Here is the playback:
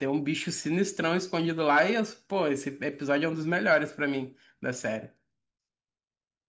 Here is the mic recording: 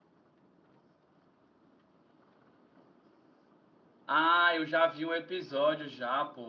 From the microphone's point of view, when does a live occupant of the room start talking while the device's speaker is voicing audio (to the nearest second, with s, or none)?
4 s